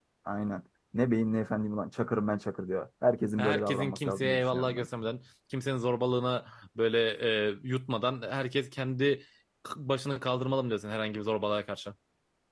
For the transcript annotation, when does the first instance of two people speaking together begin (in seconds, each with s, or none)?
3.4 s